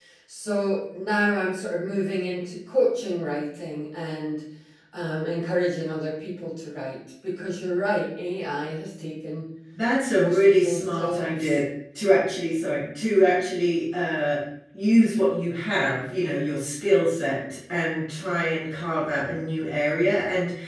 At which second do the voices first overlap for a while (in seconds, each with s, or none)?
10.2 s